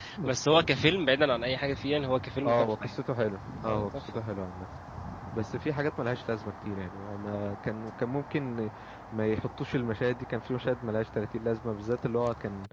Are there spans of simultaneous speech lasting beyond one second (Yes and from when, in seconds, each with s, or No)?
No